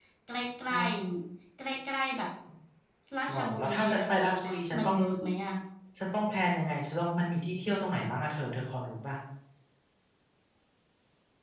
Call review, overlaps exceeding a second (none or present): present